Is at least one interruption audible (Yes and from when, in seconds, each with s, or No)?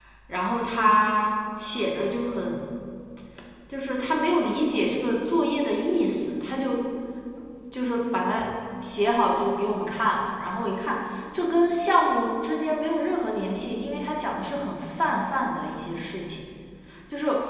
No